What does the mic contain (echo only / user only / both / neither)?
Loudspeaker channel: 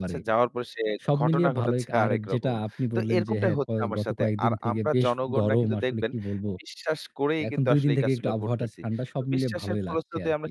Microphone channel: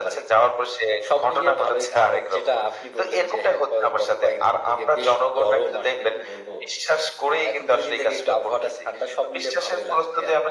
echo only